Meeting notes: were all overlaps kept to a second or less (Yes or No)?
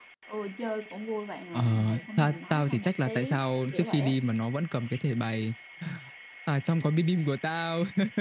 No